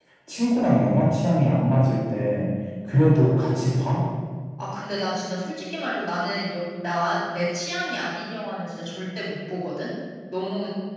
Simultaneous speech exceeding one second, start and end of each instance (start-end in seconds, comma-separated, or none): none